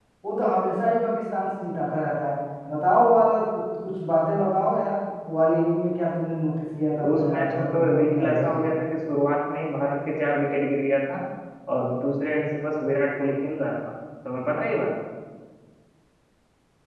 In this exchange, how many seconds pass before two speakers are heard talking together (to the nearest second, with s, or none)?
7 s